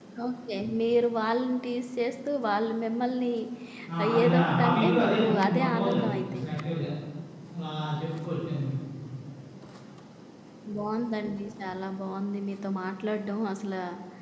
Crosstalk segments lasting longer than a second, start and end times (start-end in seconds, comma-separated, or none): 4.2-6.4